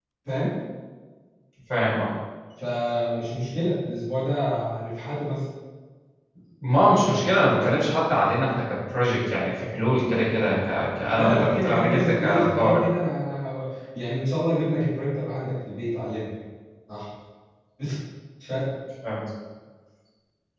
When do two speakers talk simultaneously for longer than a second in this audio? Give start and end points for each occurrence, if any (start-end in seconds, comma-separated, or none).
11.2-12.8